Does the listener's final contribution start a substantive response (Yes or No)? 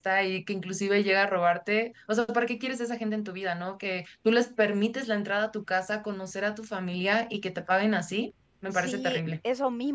Yes